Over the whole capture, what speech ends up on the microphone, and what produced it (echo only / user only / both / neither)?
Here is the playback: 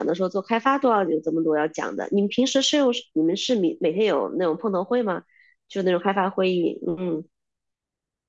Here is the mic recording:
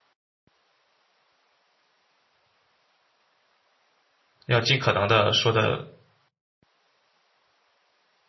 user only